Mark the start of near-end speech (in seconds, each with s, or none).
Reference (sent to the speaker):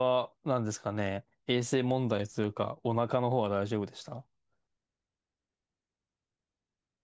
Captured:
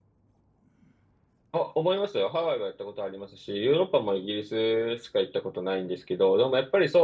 1.5 s